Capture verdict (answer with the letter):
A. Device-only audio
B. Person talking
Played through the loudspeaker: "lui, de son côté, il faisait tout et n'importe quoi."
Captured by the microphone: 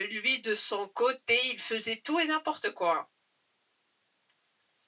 A